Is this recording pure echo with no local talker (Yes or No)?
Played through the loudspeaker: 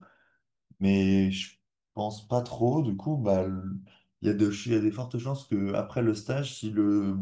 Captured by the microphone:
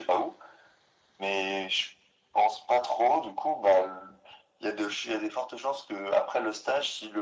Yes